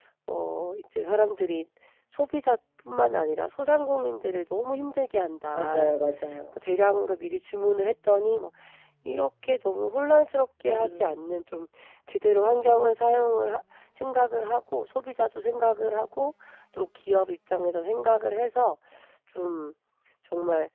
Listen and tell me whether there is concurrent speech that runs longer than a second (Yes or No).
No